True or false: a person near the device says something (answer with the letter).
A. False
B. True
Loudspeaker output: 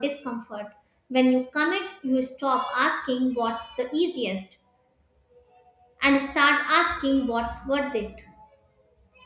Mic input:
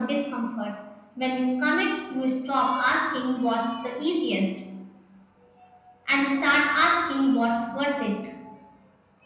A